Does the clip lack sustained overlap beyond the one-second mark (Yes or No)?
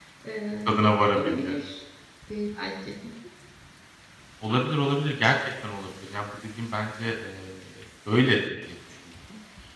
Yes